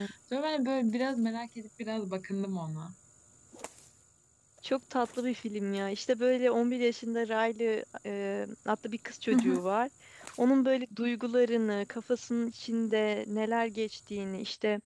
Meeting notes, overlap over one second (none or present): none